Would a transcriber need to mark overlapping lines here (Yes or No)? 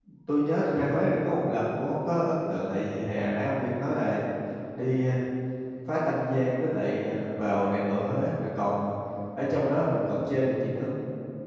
No